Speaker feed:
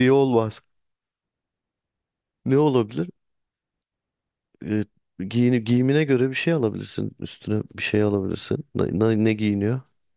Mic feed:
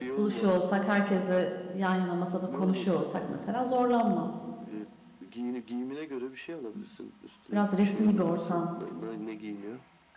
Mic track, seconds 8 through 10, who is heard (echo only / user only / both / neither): both